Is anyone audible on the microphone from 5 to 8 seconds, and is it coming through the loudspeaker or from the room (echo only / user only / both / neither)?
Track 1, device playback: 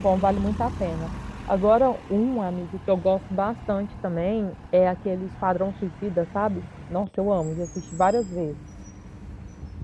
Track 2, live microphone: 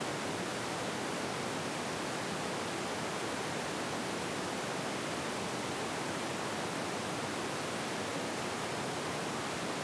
neither